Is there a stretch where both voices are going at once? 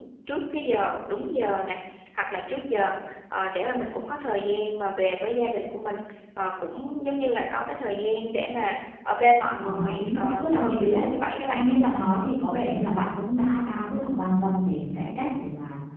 Yes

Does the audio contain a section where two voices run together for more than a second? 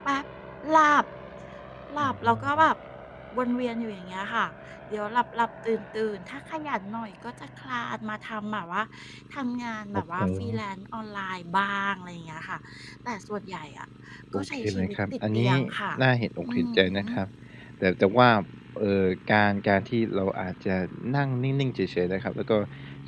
Yes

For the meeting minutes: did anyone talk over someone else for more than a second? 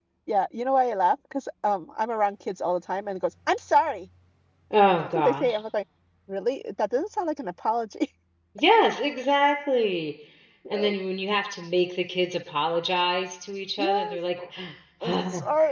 No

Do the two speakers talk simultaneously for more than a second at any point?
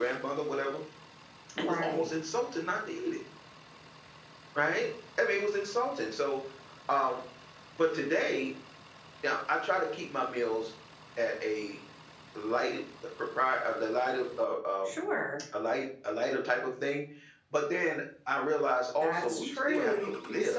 Yes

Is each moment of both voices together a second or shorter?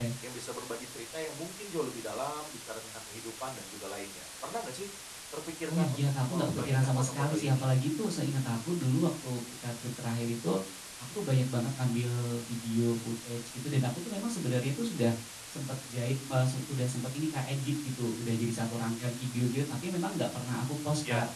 No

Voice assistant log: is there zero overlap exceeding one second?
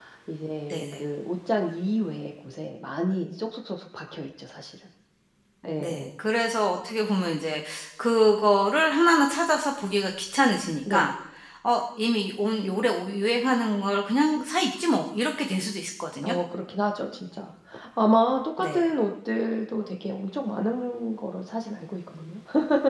Yes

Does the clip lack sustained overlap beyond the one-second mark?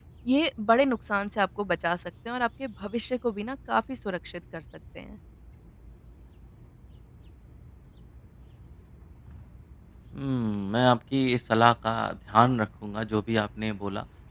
Yes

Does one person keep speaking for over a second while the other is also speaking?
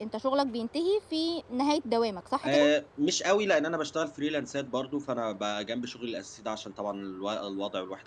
No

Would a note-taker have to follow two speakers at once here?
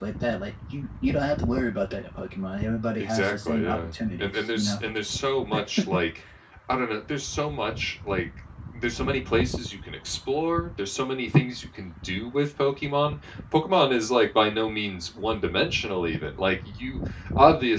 Yes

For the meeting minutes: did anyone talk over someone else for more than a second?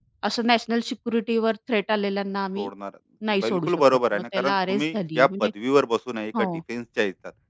Yes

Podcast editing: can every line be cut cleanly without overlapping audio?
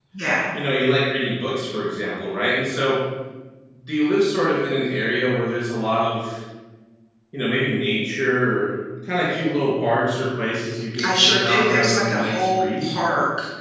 No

